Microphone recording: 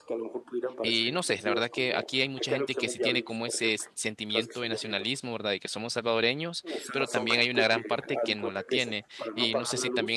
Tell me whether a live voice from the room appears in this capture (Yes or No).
Yes